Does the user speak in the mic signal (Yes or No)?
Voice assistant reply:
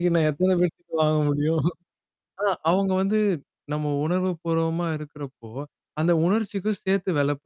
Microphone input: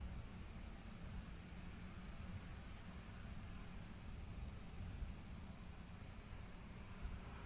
No